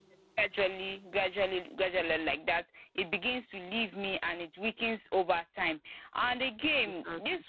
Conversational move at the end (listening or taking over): listening